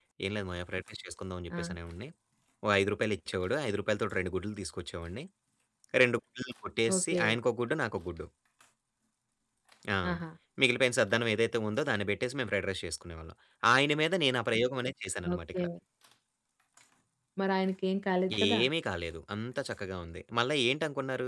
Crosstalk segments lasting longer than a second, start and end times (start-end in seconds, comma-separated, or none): none